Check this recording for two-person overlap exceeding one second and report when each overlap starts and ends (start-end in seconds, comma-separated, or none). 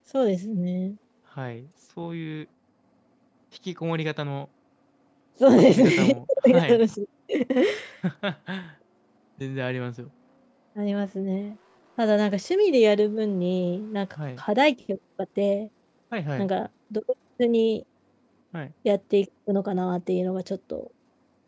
5.6-6.8